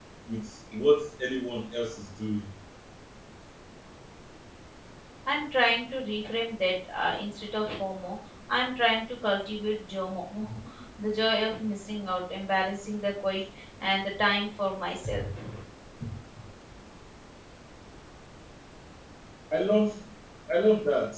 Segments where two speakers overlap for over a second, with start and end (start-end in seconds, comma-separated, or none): none